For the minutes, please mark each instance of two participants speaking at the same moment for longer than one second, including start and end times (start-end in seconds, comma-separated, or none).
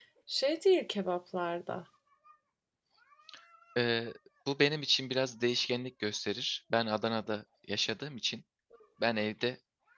none